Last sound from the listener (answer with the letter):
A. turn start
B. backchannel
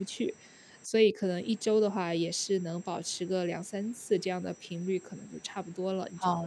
A